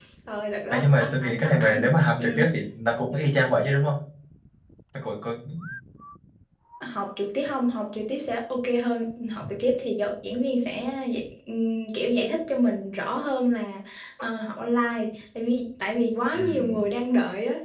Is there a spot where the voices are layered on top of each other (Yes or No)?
Yes